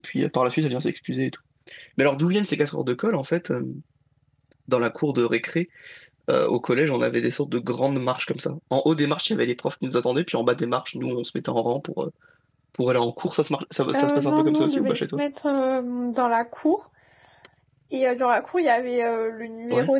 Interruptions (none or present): present